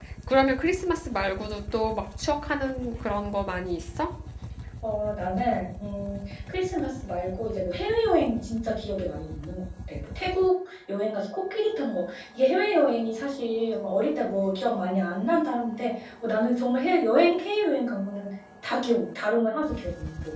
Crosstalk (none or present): none